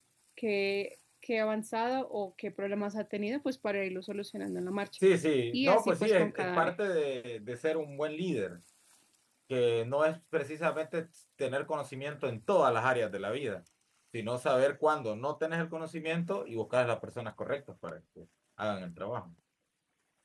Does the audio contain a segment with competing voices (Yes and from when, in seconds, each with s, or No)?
Yes, from 5.5 s